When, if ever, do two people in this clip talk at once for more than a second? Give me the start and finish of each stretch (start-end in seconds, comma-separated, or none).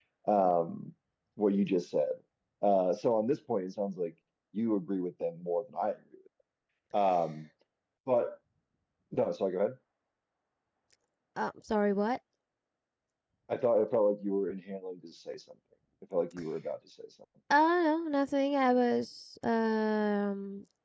none